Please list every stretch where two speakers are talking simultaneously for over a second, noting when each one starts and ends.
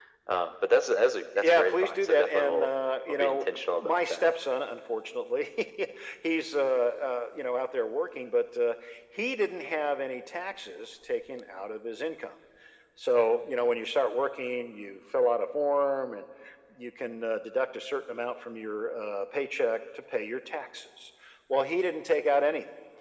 1.4-2.7, 3.1-4.3

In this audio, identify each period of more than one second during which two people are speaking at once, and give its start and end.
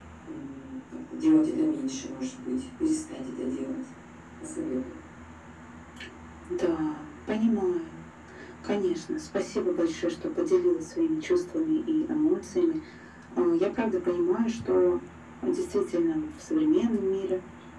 none

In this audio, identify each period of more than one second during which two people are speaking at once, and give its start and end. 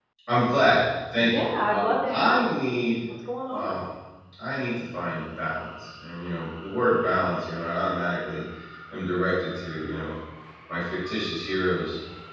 1.2-2.4

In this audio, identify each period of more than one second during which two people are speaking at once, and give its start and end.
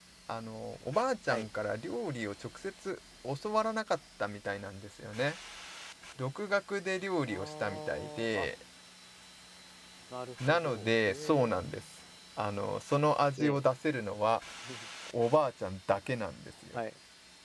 7.3-8.5, 10.5-11.7

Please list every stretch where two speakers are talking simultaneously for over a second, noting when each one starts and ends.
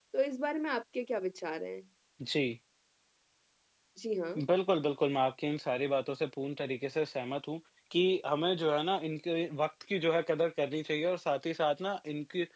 none

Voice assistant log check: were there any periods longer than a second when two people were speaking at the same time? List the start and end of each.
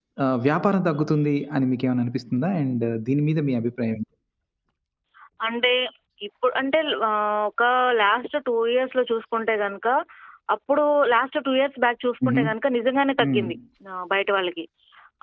none

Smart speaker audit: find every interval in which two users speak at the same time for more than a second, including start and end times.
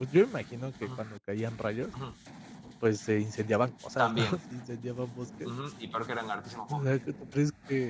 none

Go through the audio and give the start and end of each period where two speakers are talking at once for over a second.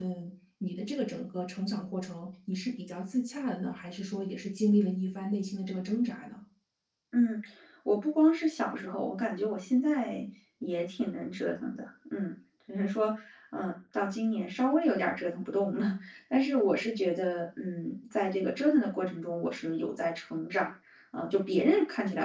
none

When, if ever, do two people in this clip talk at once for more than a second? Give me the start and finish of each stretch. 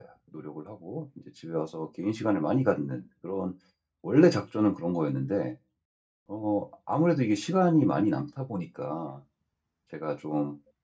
none

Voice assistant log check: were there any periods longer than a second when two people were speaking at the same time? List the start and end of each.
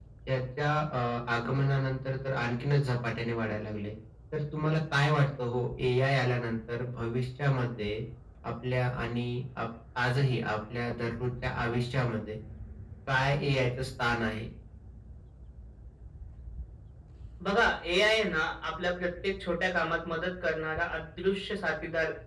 none

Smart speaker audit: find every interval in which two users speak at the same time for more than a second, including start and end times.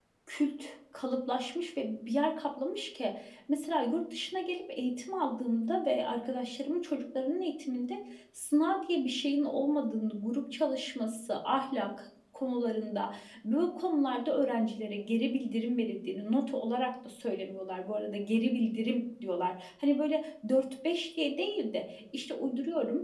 none

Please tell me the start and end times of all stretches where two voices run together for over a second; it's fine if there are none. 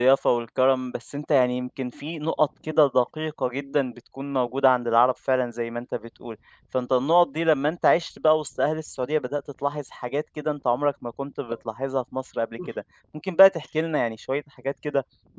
none

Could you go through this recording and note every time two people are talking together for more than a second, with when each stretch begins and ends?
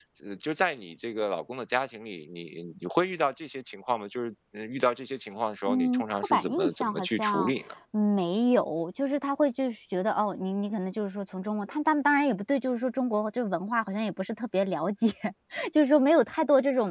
5.7-7.5

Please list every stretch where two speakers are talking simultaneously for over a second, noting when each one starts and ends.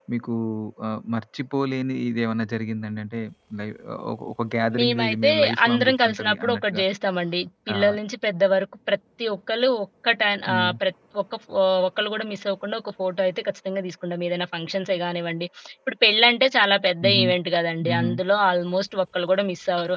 4.8-6.8

